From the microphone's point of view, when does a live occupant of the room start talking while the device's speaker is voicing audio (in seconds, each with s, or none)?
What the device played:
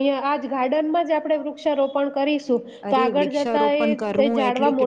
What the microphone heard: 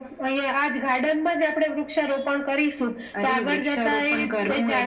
none